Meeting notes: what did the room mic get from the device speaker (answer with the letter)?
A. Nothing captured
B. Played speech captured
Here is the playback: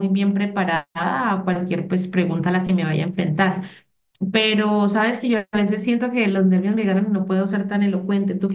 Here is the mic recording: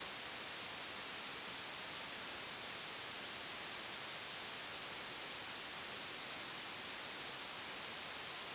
A